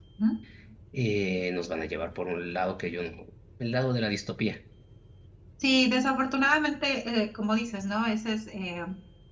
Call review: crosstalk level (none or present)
none